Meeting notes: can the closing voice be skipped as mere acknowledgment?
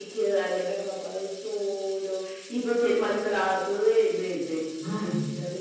Yes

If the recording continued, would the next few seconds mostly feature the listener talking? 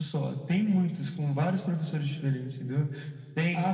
No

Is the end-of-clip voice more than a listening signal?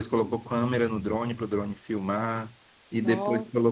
No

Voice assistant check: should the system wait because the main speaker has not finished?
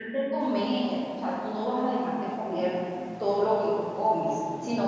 Yes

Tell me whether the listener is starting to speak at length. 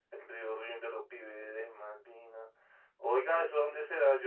No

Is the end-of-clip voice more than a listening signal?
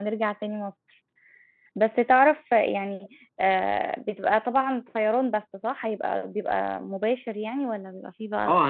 Yes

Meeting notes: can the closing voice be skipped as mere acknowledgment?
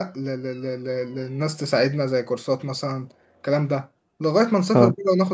Yes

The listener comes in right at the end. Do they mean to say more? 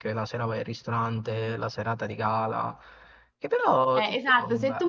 Yes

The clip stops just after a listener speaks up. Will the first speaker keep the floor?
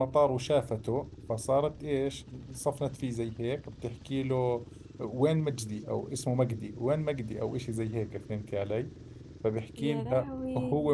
Yes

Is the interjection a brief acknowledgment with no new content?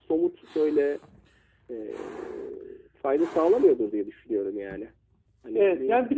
No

